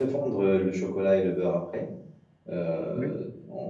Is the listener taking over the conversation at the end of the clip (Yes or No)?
No